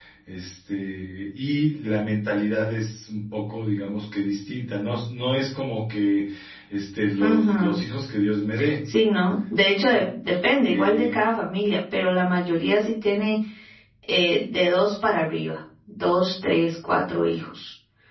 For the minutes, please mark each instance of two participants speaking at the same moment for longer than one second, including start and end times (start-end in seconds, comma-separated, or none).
none